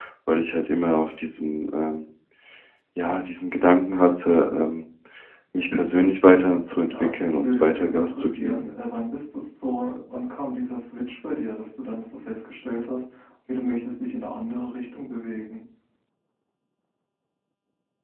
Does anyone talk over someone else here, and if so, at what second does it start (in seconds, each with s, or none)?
6.9 s